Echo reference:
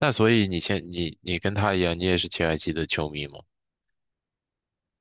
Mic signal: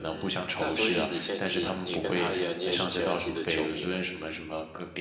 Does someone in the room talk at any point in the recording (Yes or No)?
Yes